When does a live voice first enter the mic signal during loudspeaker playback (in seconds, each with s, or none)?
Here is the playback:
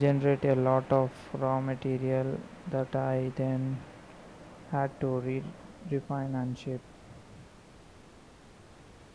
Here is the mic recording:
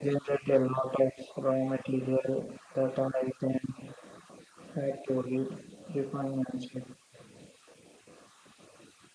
none